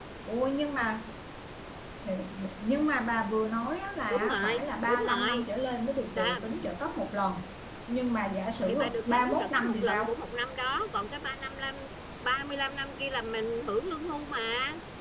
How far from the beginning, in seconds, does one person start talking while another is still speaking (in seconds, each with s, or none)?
4.1 s